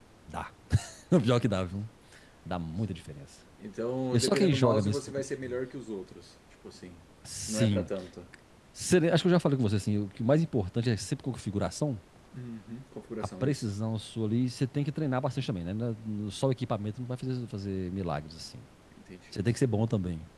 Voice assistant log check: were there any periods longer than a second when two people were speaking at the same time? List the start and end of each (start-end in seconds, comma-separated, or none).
4.1-5.6